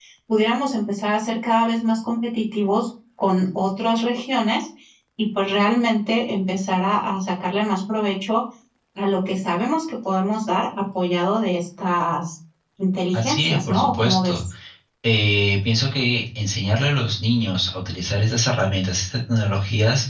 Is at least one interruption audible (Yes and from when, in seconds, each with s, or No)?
Yes, from 13.1 s